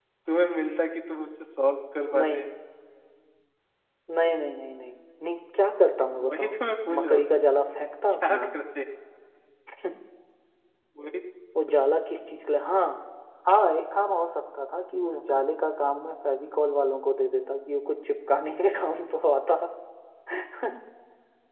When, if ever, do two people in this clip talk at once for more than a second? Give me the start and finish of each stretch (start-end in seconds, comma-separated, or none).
none